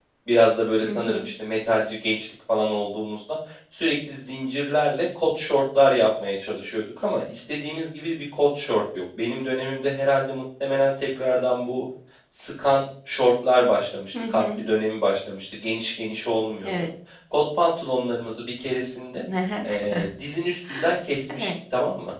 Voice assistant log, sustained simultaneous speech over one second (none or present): none